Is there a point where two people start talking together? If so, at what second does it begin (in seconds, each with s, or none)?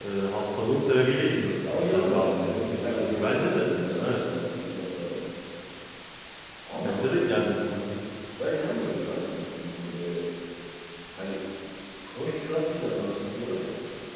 1.6 s